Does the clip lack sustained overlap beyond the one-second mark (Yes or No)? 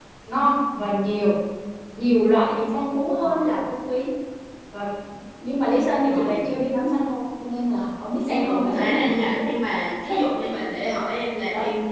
No